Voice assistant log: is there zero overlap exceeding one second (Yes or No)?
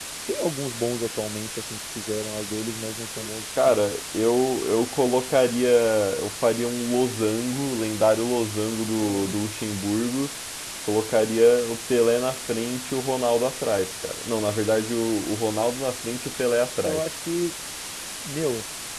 Yes